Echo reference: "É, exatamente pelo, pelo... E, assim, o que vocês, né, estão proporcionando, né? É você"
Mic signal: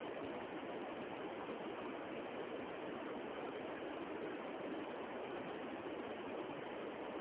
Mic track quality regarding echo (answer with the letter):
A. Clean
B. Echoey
A